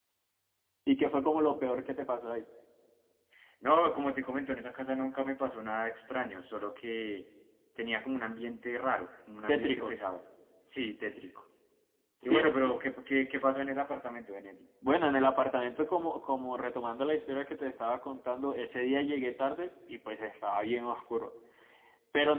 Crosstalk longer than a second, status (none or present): none